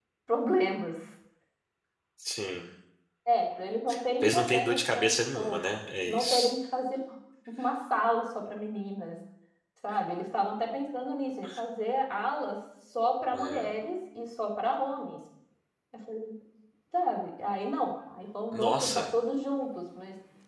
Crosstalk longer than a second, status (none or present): present